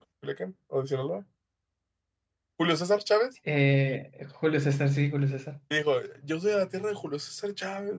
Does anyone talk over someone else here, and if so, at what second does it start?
none

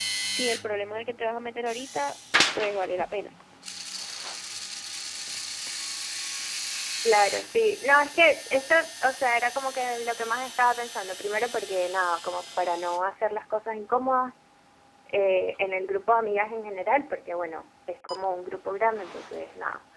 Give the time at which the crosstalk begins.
none

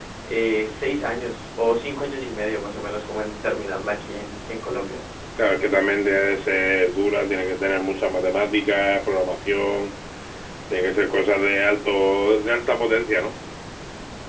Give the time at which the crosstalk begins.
none

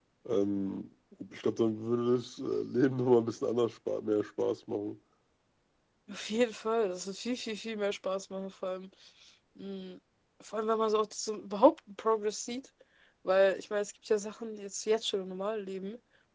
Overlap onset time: none

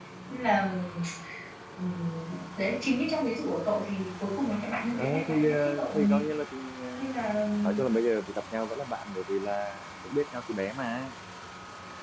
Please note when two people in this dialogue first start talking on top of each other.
5.0 s

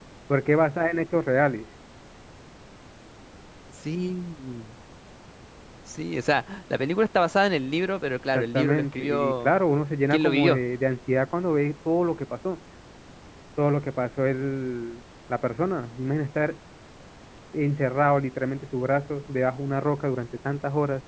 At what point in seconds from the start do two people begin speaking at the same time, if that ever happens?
8.3 s

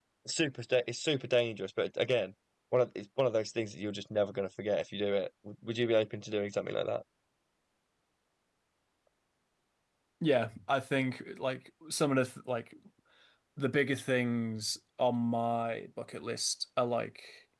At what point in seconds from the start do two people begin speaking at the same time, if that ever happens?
none

